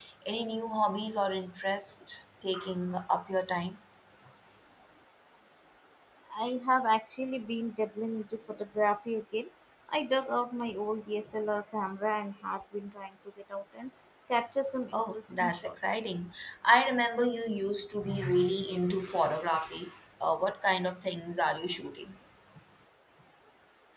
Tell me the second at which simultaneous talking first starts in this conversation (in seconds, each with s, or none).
14.9 s